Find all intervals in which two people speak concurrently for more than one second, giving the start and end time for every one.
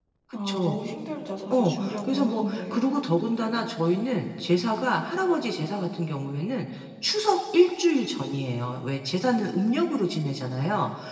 1.5-2.8

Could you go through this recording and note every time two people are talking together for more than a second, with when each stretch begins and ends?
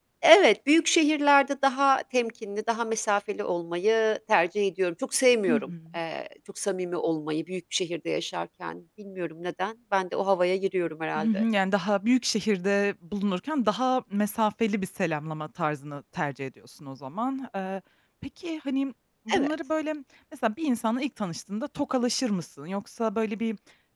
none

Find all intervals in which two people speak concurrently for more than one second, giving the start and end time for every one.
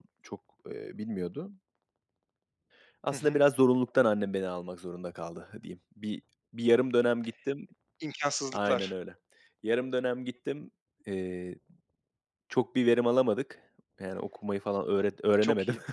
none

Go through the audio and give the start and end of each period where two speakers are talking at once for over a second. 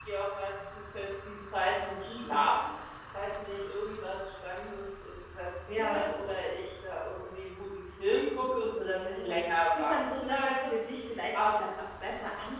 8.9-10.7

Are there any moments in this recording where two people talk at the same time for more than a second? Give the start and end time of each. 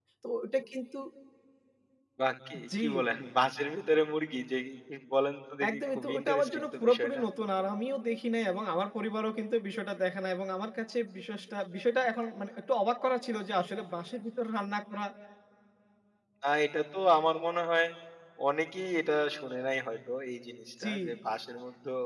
5.7-7.2

